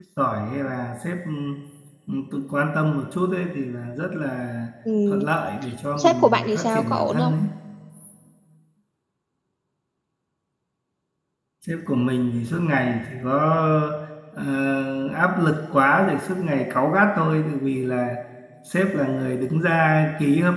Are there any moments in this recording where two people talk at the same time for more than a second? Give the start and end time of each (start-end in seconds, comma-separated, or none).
6.0-7.3